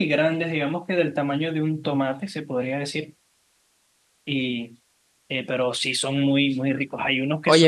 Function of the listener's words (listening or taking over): taking over